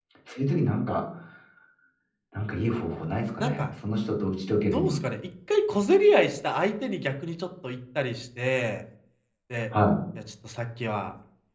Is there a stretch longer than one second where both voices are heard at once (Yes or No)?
No